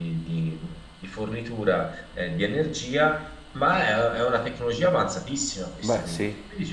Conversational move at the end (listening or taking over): listening